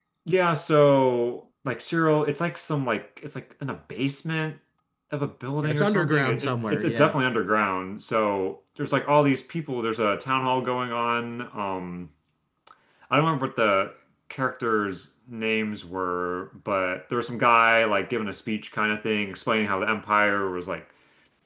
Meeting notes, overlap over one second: present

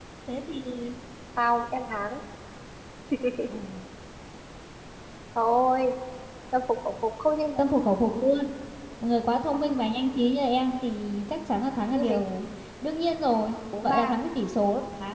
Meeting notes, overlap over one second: none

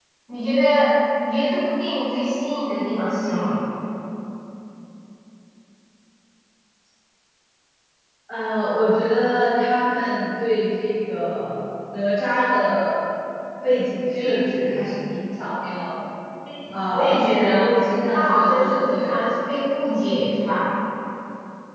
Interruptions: present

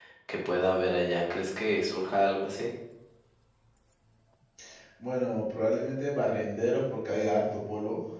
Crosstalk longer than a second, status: none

